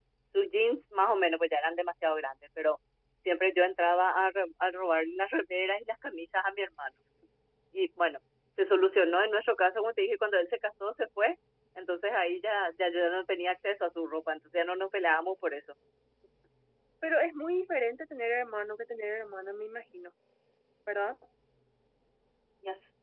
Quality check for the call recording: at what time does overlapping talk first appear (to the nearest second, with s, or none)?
none